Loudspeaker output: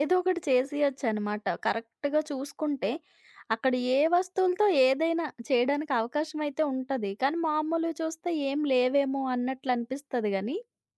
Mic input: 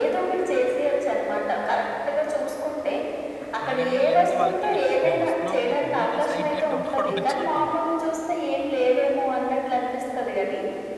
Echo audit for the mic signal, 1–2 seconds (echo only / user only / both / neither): echo only